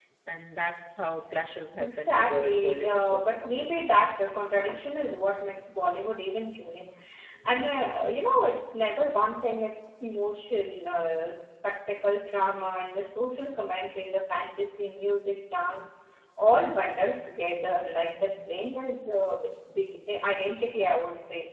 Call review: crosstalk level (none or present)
present